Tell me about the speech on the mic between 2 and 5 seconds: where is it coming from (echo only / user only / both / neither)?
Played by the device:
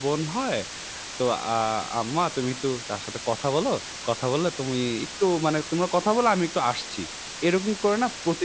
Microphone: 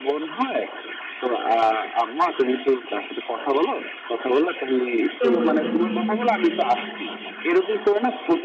echo only